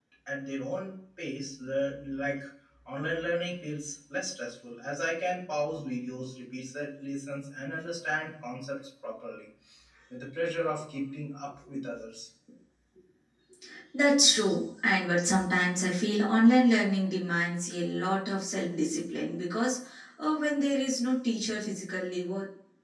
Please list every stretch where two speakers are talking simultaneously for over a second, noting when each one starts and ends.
none

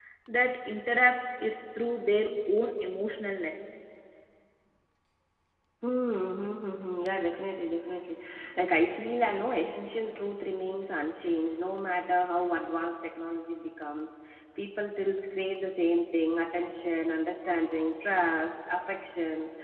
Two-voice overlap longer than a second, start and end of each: none

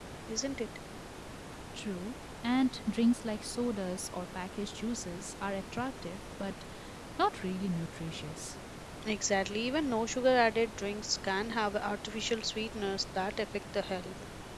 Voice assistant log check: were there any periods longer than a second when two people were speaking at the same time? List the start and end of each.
none

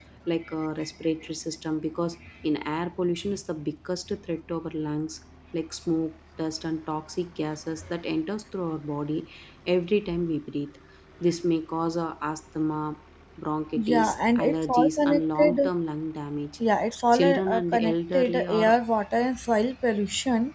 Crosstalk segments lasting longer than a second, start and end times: 13.8-15.7, 17.1-18.8

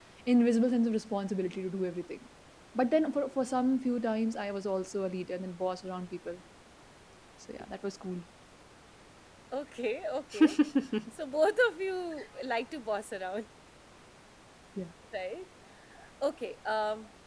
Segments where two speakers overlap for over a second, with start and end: none

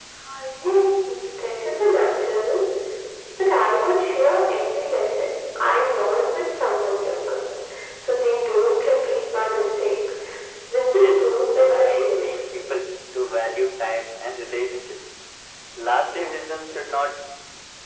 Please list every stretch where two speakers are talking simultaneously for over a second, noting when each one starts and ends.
11.0-12.4

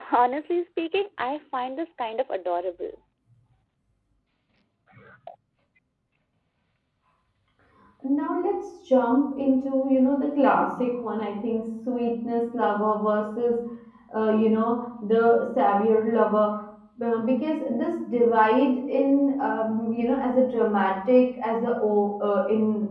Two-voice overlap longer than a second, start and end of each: none

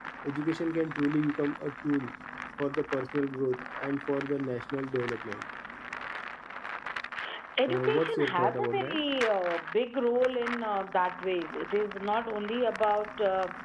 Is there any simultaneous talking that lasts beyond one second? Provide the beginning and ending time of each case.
7.7-9.0

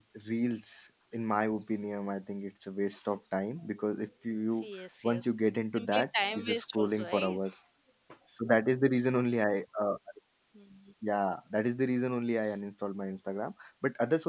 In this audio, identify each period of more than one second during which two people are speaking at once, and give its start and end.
5.7-7.4

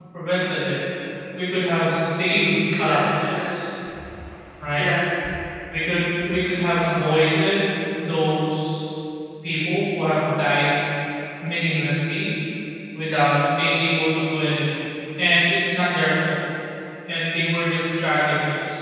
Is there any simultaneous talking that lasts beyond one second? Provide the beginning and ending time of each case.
2.3-3.5

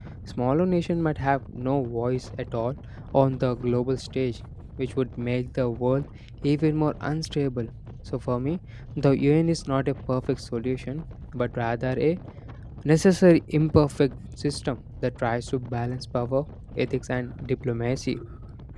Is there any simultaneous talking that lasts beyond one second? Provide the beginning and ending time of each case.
none

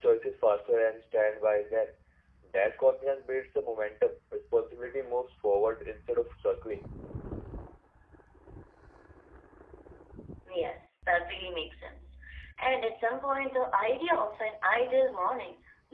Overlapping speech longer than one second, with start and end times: none

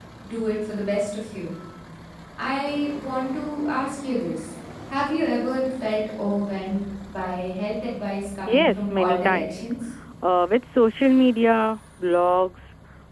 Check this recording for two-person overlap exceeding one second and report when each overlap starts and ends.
8.4-9.7

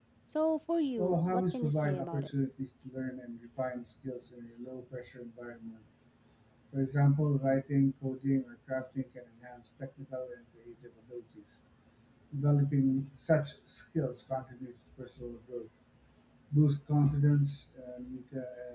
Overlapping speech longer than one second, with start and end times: 1.0-2.3

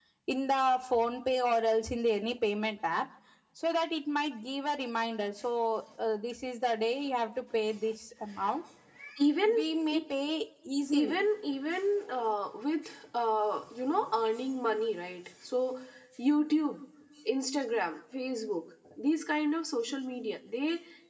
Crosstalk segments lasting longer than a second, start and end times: none

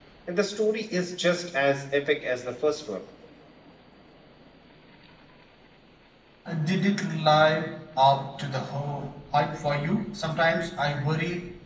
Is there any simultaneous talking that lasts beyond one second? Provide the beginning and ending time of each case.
none

